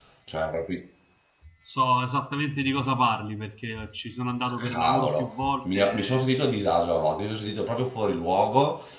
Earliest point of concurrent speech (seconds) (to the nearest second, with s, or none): 5 s